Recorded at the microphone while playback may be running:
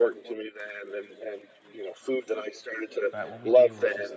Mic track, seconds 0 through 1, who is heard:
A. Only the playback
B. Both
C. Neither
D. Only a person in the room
A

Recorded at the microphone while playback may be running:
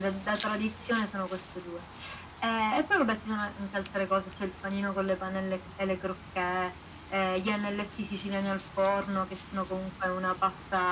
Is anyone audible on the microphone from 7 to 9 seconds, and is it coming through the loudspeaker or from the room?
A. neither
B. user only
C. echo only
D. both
C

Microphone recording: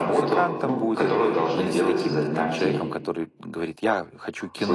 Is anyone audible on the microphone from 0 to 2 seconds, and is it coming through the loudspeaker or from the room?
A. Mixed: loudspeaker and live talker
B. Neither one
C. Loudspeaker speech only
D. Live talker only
A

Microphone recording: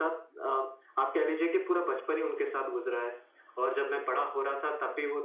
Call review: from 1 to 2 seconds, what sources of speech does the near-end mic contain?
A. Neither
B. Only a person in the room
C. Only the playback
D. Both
C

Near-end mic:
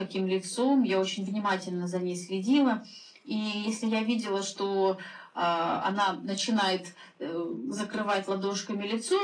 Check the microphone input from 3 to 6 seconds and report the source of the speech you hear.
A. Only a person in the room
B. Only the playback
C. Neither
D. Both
B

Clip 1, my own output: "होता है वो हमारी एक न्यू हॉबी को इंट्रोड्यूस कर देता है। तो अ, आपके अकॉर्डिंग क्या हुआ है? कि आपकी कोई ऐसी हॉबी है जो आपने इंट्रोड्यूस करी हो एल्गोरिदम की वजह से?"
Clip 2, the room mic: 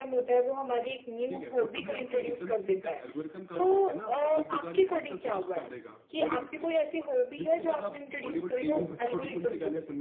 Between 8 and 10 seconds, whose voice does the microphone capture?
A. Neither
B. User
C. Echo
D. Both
D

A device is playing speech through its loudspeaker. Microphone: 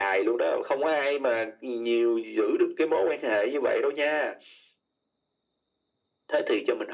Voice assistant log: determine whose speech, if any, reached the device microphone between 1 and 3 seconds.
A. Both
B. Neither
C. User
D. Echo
D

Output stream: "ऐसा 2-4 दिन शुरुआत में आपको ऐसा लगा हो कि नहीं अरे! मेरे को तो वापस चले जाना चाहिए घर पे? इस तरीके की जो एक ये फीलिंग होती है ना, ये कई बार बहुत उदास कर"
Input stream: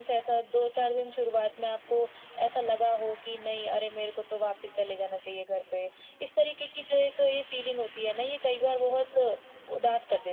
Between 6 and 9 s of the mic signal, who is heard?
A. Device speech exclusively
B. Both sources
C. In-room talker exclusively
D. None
A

